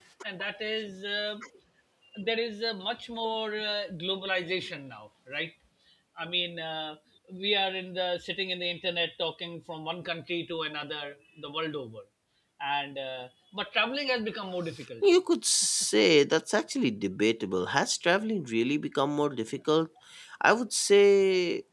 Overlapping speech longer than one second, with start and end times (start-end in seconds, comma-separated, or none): none